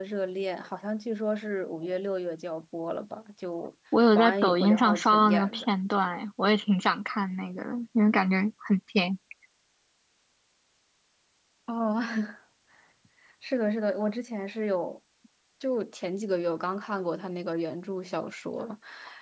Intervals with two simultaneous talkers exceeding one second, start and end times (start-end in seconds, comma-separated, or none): 4.1-5.7